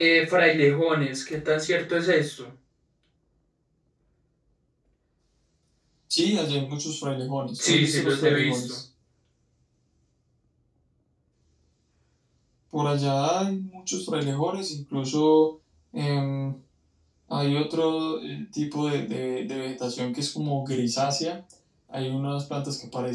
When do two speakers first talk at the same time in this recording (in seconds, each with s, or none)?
7.6 s